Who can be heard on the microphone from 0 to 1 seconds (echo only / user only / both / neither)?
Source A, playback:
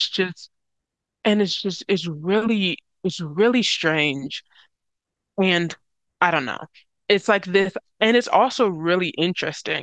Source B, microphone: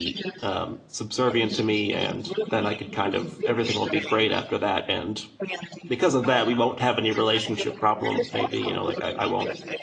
both